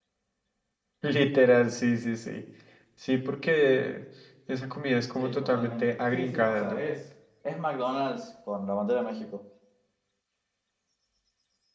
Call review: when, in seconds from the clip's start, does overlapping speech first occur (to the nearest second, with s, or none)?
5 s